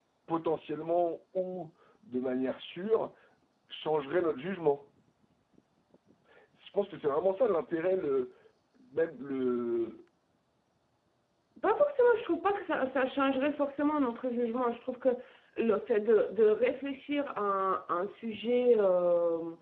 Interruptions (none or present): none